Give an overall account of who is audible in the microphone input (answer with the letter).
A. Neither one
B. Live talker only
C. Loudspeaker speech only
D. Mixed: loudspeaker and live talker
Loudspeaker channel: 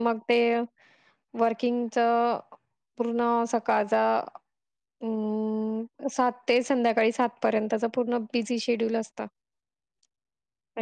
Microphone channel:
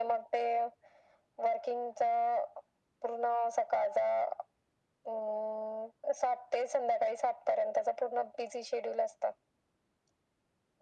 C